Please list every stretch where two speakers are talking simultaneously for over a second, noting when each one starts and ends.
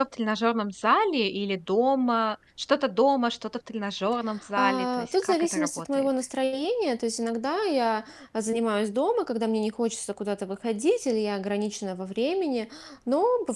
4.6-6.1

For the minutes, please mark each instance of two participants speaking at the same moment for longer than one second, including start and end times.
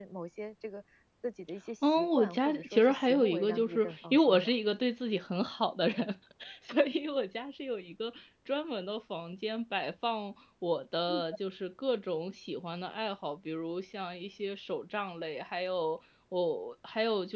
1.8-4.5

